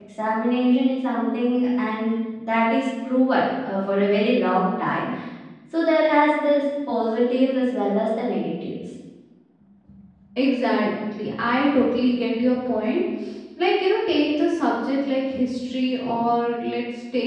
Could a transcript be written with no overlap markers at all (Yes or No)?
Yes